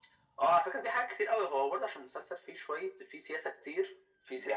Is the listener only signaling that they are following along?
Yes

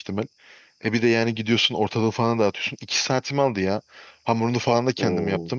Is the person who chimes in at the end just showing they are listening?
Yes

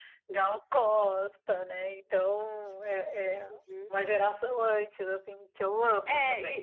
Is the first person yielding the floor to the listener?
Yes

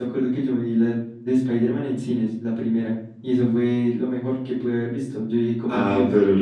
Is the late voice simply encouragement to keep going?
No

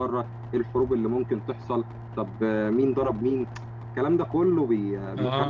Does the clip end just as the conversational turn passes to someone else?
Yes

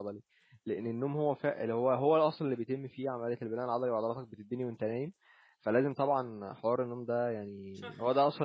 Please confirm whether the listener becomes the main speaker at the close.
No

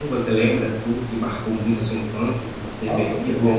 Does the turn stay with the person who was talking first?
No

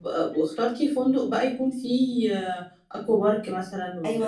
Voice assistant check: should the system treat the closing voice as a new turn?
Yes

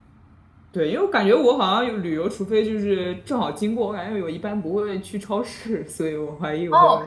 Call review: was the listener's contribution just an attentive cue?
No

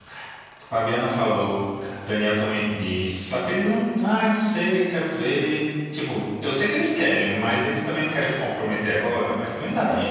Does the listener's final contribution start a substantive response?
Yes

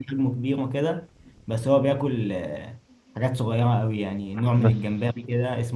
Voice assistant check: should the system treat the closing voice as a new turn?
No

